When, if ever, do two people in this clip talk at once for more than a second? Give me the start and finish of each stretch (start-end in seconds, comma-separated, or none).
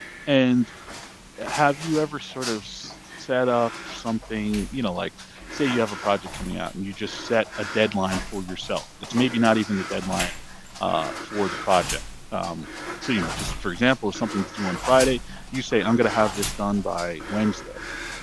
none